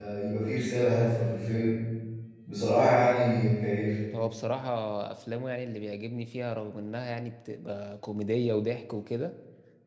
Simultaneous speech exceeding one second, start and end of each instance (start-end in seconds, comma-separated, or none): none